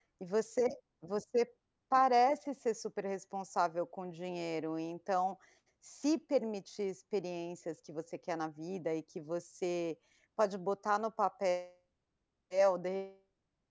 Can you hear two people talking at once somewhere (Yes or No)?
No